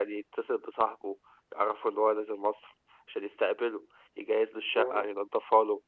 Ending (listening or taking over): listening